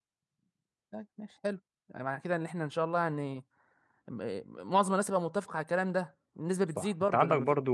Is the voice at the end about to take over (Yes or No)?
Yes